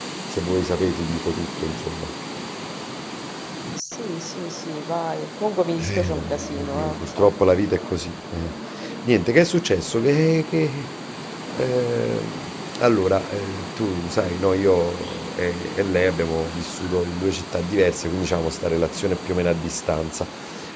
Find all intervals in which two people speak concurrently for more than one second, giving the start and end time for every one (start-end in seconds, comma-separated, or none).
5.9-7.3